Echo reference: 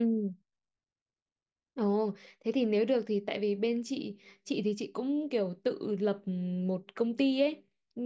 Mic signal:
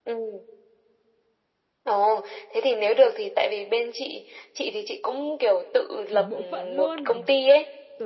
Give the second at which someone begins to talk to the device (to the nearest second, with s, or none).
6 s